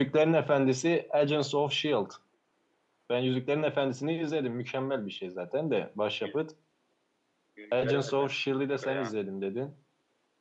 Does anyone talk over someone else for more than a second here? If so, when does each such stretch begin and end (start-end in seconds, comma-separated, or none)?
7.8-9.1